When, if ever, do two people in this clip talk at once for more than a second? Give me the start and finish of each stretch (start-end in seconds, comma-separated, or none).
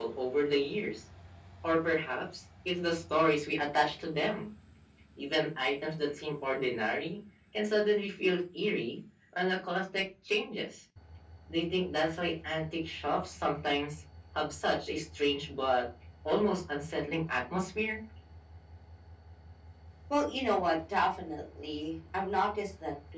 none